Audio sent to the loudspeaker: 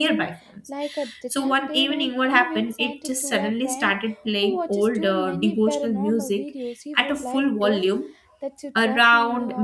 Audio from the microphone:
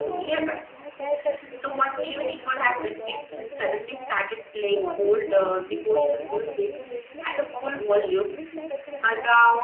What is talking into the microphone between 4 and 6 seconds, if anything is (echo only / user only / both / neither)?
both